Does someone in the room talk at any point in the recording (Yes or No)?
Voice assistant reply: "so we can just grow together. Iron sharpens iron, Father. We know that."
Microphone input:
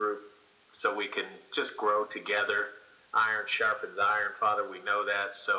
No